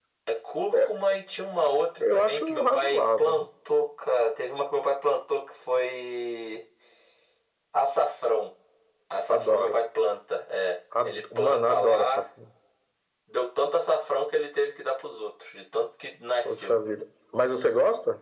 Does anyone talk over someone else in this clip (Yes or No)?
Yes